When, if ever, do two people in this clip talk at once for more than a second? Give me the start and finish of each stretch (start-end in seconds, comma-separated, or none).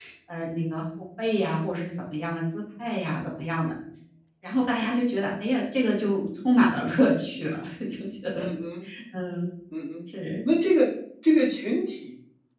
none